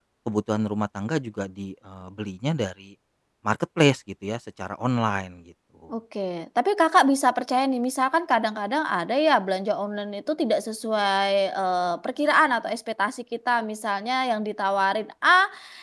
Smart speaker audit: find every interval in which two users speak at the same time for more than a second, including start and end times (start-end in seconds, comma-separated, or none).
none